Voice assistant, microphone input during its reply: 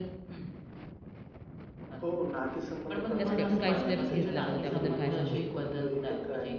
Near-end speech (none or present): present